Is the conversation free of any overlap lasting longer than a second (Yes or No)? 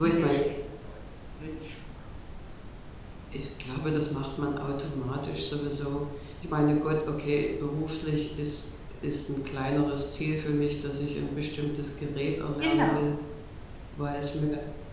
Yes